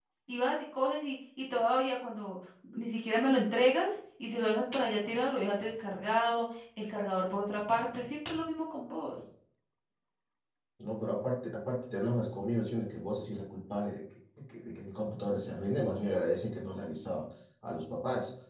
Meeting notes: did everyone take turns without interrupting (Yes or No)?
Yes